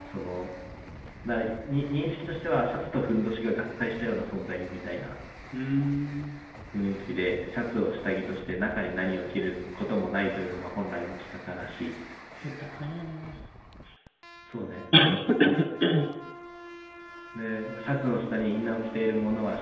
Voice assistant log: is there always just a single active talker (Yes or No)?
Yes